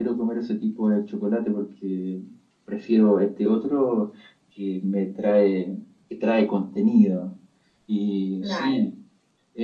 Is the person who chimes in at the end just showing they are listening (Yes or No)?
Yes